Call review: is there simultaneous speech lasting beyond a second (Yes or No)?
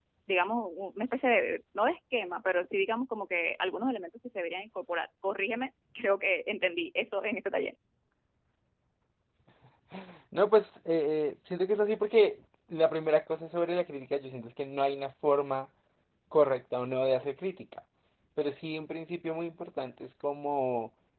No